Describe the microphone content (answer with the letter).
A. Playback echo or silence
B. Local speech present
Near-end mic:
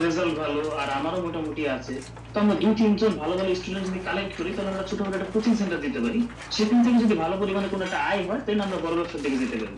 A